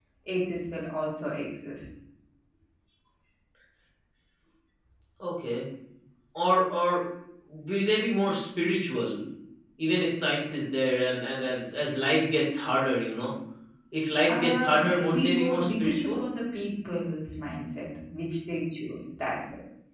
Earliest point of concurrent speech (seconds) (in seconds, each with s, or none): 14.3 s